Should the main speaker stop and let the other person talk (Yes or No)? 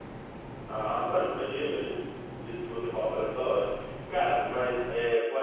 No